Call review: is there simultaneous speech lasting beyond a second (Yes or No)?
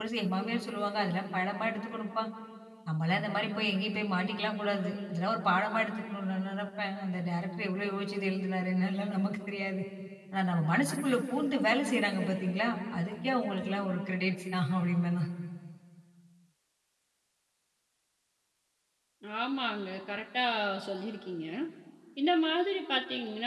No